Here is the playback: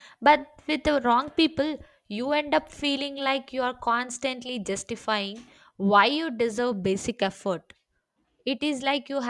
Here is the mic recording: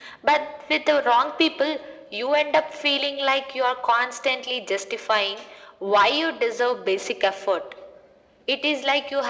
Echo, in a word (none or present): present